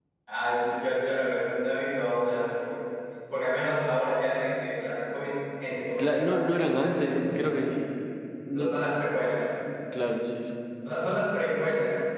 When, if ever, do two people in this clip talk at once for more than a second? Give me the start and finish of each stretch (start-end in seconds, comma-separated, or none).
6.0-7.7